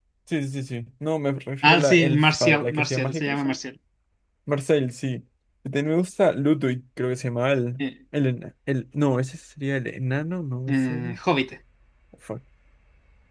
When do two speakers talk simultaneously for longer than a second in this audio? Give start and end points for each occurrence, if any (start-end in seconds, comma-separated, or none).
1.6-3.3